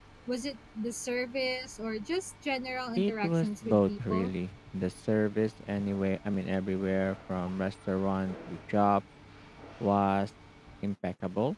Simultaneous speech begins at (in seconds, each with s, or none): 3.0 s